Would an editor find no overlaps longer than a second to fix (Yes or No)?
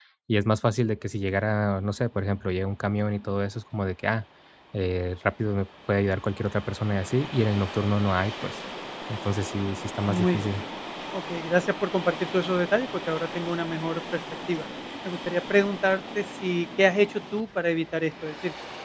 Yes